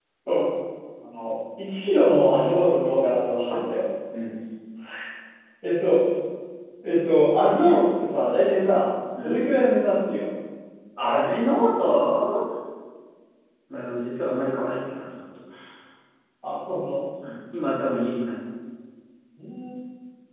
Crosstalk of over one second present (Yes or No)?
No